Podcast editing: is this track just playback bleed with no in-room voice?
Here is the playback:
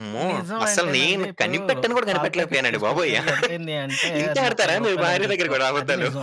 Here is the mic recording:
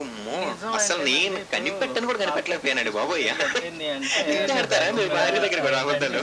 No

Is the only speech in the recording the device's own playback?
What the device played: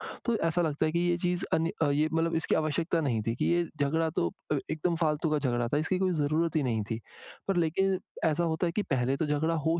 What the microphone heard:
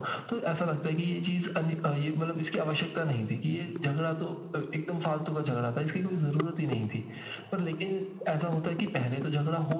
Yes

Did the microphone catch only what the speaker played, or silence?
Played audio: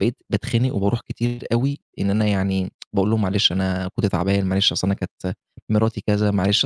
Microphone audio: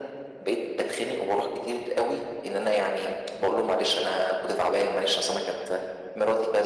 Yes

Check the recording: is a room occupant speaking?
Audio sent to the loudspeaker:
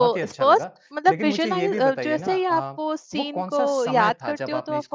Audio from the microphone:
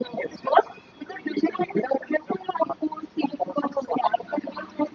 No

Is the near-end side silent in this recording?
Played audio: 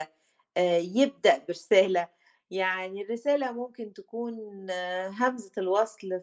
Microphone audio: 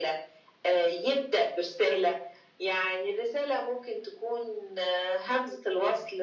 Yes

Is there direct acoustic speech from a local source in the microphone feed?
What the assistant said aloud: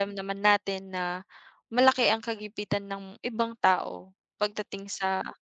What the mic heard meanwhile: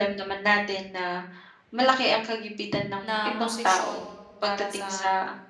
Yes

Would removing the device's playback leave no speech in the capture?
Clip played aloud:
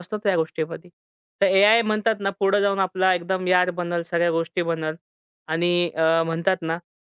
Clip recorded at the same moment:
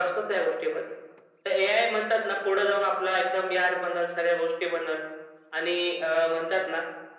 Yes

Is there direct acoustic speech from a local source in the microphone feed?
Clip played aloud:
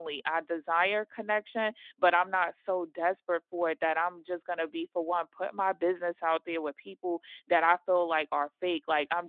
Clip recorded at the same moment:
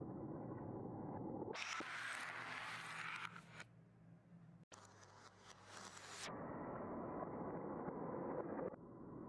No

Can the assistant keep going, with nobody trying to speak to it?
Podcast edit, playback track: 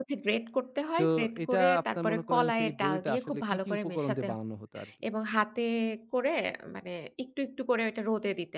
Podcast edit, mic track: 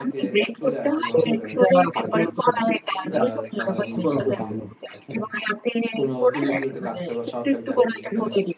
No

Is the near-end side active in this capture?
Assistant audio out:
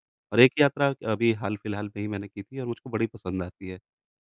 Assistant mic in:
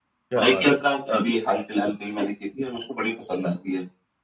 Yes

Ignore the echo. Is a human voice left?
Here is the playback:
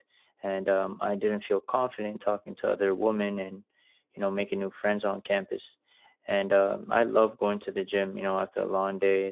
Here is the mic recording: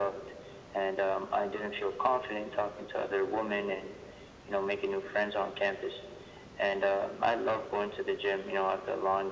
No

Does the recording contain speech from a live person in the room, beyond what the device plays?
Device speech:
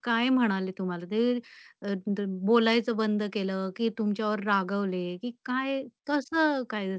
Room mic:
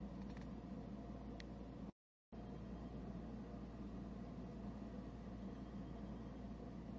No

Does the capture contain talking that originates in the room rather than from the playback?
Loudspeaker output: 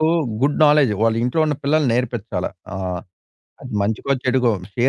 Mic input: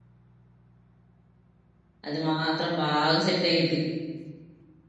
Yes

